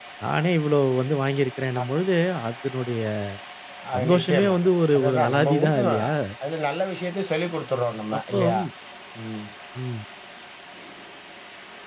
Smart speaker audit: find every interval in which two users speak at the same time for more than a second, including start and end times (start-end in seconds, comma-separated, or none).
4.0-6.0